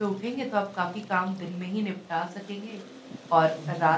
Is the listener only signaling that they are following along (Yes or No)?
Yes